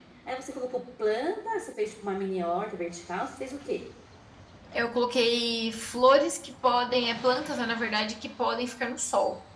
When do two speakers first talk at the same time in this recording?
none

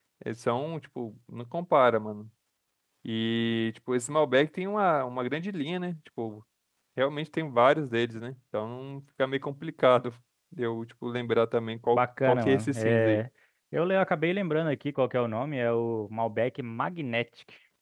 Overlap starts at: 12 s

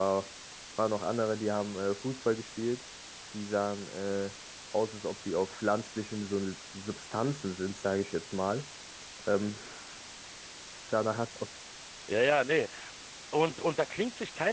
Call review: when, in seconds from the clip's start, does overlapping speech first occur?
none

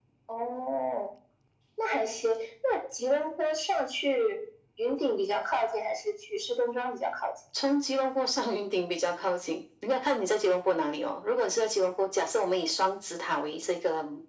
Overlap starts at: none

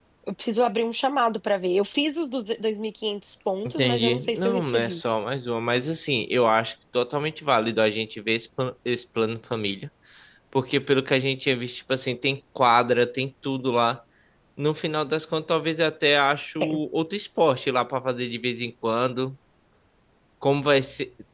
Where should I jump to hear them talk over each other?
4 s

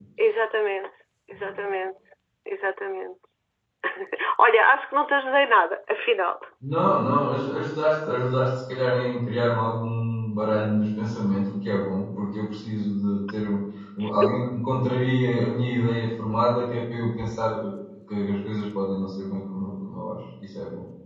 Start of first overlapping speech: none

